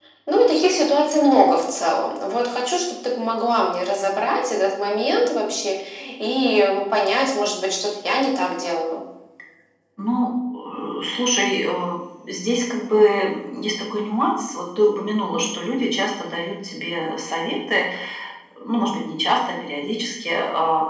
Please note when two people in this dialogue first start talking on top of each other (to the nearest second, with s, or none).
none